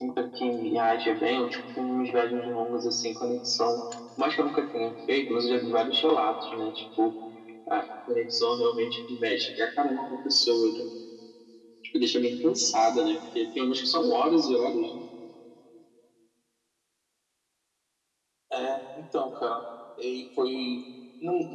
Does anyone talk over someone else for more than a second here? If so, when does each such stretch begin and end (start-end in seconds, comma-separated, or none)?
none